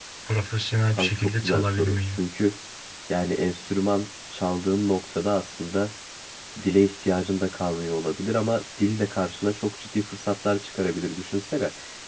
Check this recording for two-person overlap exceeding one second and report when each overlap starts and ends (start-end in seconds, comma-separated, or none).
0.9-2.2